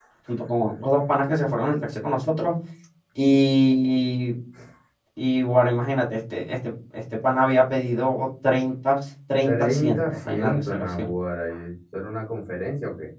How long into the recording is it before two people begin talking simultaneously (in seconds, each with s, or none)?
9.4 s